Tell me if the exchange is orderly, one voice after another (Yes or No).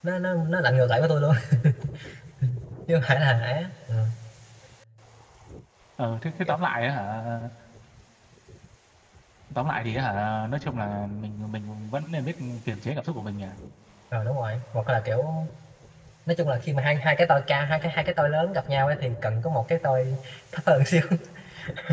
Yes